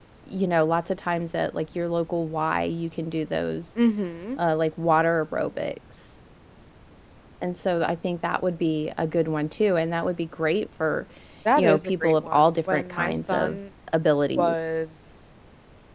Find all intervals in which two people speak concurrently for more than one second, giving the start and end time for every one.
11.6-13.6

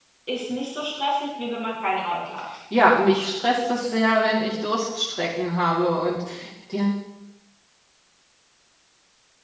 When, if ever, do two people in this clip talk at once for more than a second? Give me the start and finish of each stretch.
none

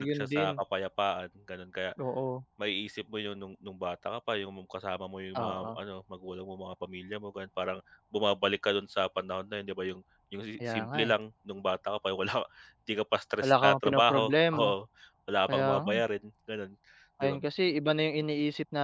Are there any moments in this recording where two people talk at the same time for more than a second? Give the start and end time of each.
13.4-14.7

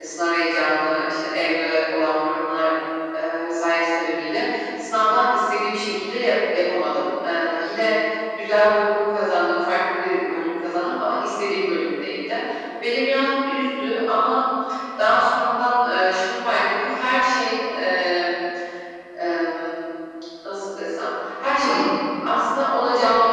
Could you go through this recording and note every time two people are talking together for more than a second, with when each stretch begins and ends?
none

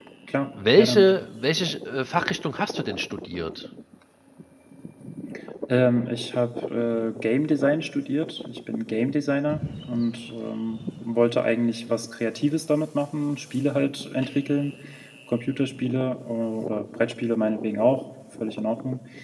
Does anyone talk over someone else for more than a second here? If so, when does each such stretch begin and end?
none

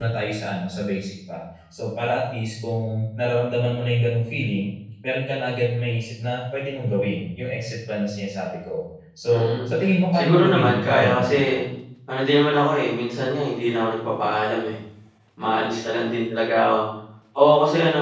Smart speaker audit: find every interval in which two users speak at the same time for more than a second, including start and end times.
10.1-11.4

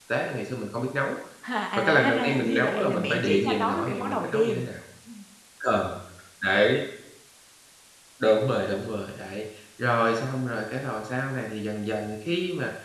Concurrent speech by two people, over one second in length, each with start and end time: 1.8-4.6

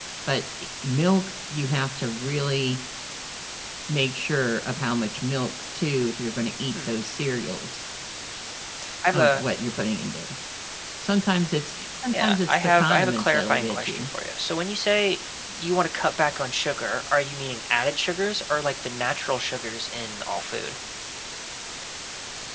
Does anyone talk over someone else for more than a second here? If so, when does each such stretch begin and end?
12.1-14.1

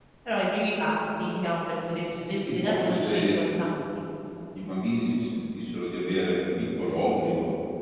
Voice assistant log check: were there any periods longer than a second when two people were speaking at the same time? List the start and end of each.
2.2-3.4

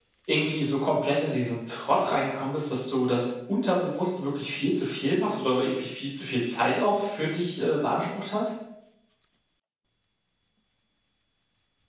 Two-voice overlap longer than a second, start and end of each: none

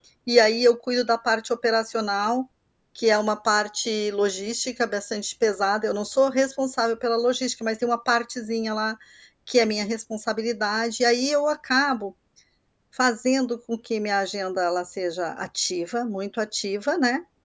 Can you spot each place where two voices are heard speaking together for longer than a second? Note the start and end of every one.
none

